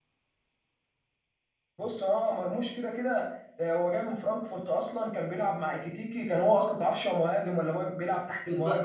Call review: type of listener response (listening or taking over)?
taking over